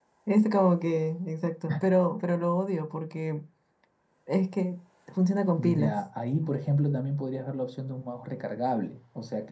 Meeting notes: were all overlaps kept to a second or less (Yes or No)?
Yes